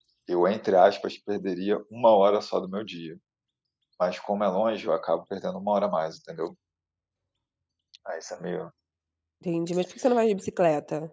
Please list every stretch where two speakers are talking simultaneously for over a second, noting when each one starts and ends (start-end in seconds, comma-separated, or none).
none